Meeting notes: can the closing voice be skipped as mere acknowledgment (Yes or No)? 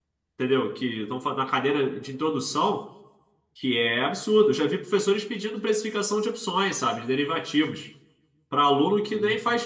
Yes